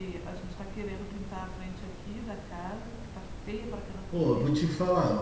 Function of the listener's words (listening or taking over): taking over